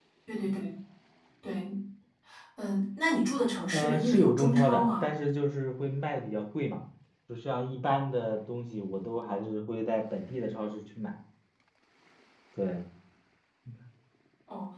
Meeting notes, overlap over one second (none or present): present